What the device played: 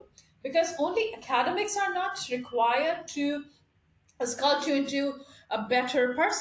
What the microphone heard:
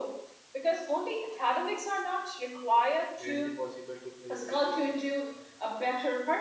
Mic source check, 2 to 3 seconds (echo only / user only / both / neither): echo only